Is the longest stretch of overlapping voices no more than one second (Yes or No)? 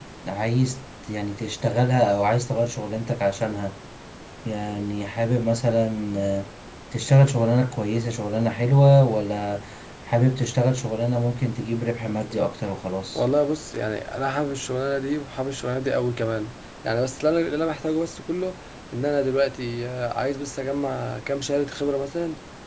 Yes